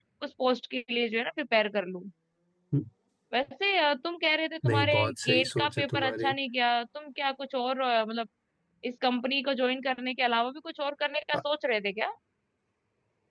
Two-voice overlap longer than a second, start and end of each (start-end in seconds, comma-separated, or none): 4.7-6.3